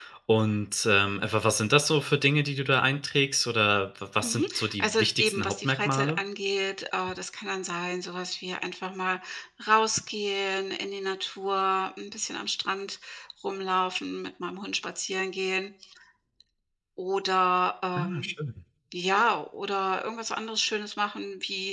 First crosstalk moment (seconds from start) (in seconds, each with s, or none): 4.2 s